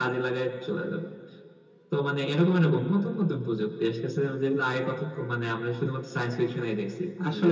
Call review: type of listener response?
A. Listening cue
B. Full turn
B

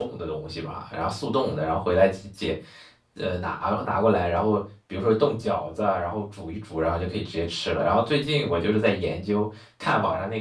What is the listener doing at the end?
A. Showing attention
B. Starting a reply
B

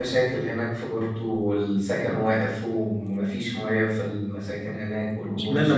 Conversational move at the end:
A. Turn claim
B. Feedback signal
A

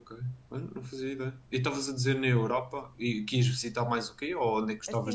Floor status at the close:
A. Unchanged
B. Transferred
B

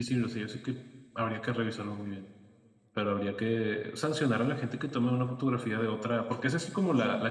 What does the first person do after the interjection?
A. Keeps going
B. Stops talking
A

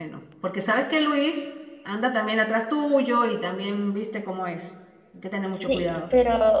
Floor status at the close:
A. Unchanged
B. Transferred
B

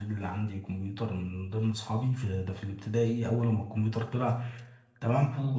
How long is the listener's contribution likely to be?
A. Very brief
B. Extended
A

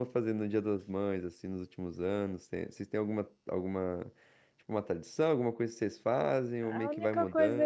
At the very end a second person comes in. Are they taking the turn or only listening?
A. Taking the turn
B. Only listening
A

